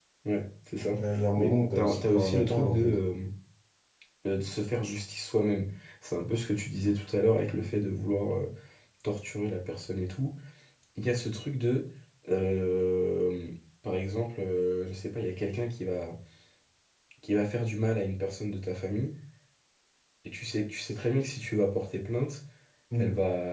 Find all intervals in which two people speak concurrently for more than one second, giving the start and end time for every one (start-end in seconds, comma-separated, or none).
1.4-2.9